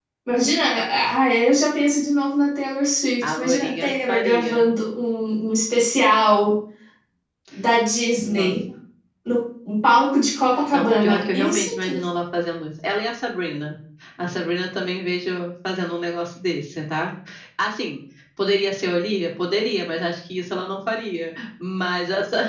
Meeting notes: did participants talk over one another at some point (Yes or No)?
Yes